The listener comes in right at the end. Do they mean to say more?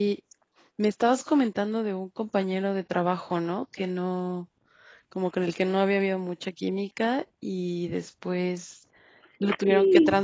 No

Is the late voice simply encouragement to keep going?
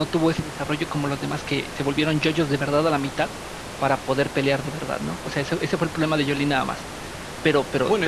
No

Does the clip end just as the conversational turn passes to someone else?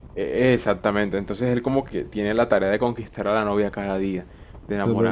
No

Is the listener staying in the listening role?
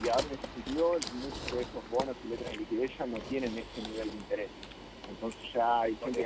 No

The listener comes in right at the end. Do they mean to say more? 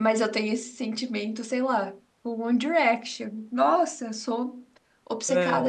No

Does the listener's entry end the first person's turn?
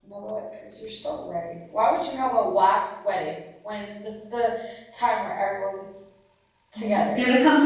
Yes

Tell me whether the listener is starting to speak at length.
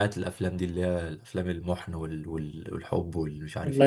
Yes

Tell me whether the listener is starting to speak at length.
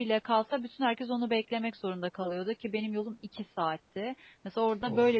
No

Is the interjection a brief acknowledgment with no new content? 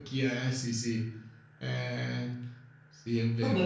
No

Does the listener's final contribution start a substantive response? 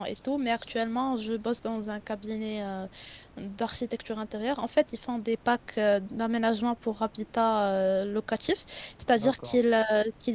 No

